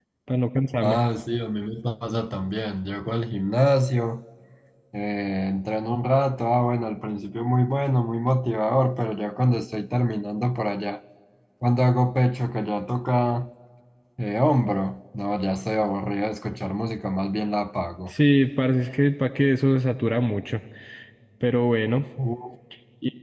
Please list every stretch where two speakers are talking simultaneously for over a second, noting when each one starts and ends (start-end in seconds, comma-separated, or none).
none